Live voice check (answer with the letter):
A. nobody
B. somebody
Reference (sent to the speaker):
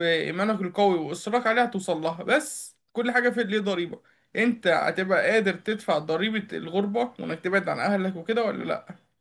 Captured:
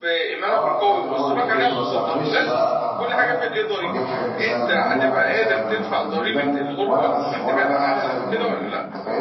B